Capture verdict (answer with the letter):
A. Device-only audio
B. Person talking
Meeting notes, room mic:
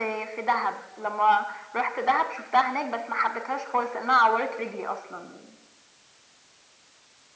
A